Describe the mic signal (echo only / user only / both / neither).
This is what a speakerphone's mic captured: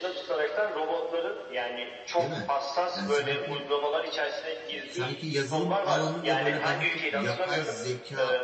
both